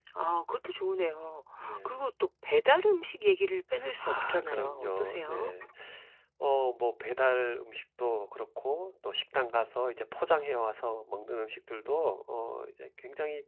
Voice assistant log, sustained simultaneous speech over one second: present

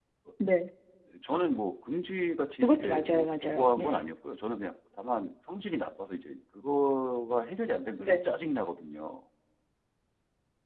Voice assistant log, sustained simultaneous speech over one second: present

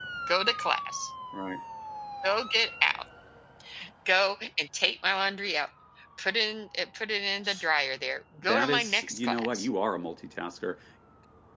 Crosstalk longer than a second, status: present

